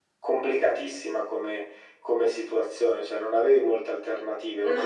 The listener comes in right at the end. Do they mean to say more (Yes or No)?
No